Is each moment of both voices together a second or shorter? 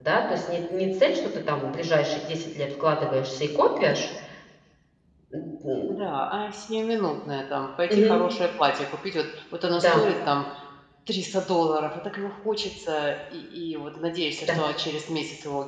Yes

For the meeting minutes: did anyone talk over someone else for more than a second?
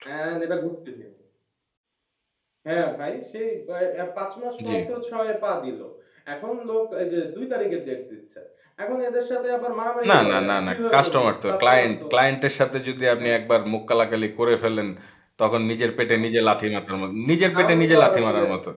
Yes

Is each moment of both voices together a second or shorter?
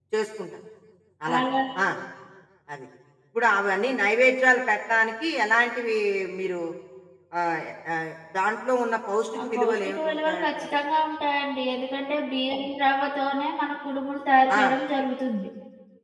No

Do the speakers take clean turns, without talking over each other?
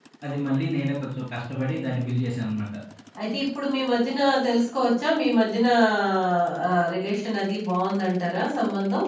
Yes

